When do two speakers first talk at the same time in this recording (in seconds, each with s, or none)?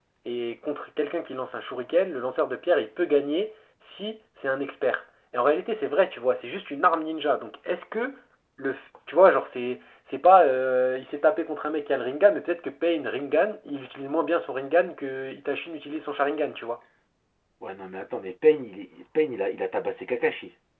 none